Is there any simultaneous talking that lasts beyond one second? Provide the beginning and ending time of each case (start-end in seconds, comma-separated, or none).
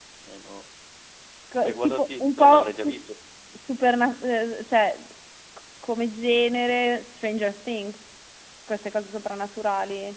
1.6-3.0